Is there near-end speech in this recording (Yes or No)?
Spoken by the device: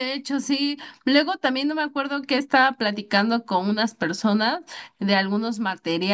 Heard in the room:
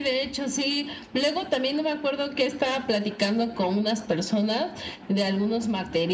No